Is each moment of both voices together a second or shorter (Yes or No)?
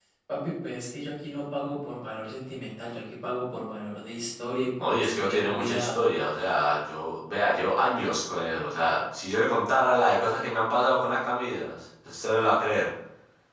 No